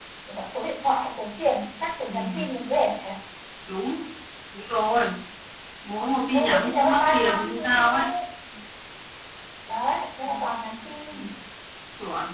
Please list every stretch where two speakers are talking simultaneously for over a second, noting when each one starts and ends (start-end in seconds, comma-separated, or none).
6.3-8.1